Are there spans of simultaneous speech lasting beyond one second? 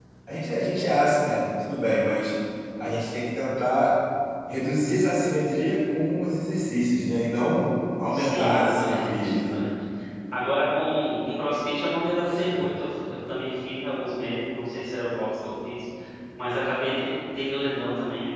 Yes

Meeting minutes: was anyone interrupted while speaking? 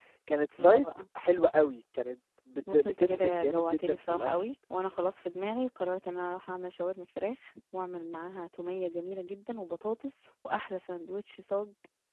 Yes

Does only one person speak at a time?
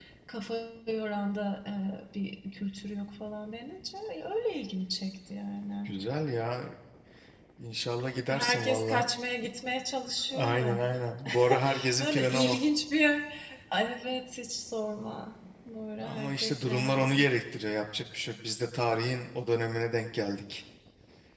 No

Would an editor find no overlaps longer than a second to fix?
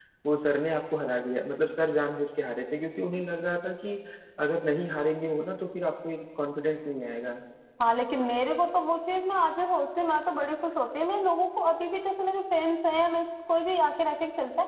Yes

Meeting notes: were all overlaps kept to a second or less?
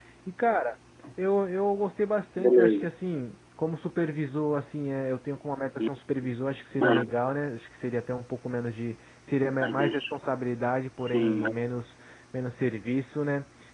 Yes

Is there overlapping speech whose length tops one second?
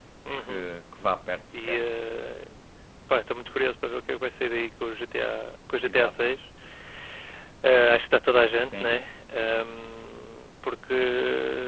No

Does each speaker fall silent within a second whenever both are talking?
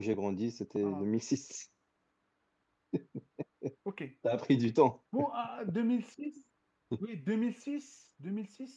Yes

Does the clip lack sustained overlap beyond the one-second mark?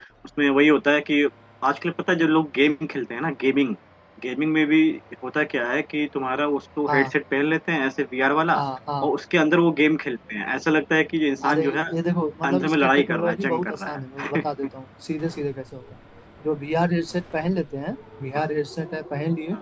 No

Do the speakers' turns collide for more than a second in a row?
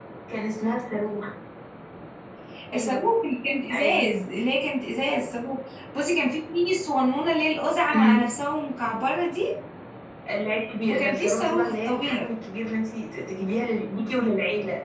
Yes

